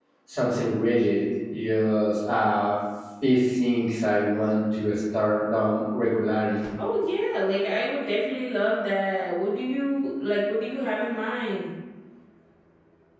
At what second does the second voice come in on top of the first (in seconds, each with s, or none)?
none